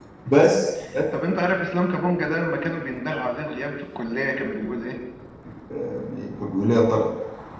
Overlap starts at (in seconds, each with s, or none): none